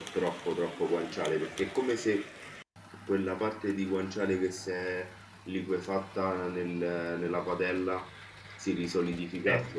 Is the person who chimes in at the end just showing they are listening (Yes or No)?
Yes